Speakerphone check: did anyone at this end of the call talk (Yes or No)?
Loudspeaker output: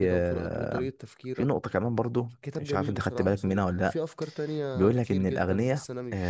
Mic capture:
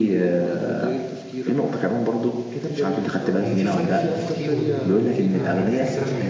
Yes